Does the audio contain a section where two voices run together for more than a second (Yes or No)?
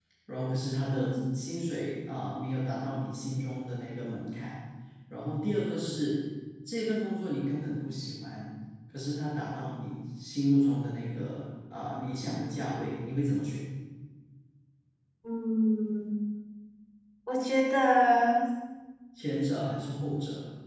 No